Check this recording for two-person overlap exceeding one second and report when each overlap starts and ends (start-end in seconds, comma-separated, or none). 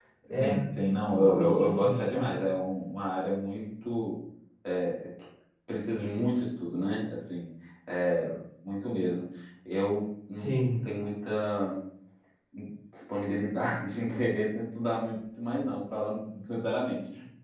1.1-2.3